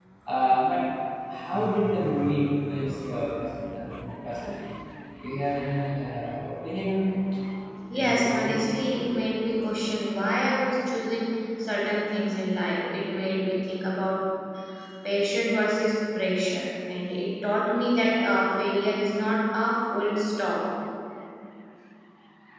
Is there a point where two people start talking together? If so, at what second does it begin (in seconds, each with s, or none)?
7.9 s